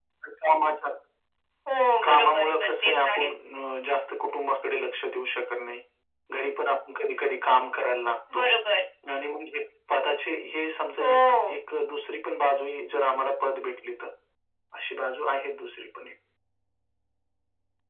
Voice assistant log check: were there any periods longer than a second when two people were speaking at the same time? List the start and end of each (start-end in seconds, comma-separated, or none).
2.0-3.3